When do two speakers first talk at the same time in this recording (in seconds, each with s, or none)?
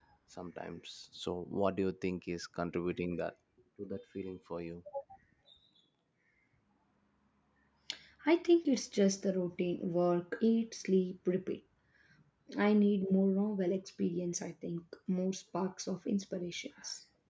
none